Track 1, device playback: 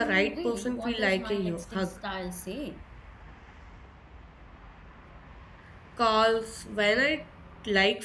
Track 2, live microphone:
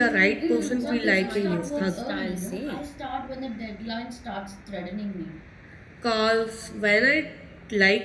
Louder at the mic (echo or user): echo